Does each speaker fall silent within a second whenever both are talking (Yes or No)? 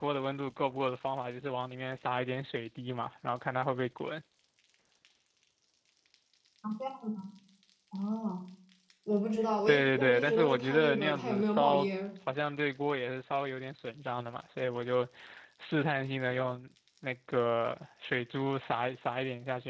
No